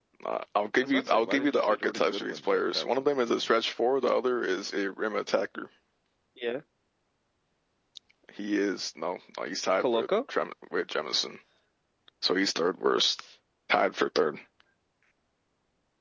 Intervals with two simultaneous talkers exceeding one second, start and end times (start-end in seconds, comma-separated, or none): 0.8-3.5